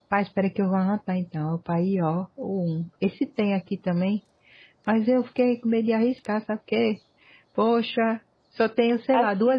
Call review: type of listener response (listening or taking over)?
listening